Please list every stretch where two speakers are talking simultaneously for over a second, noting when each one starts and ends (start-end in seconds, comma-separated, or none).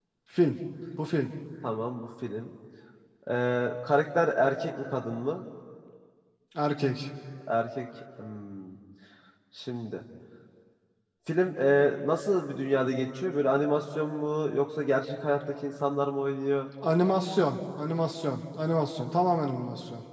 none